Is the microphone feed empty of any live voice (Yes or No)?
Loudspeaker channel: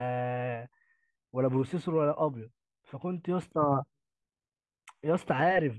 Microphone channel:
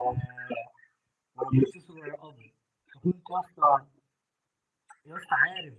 Yes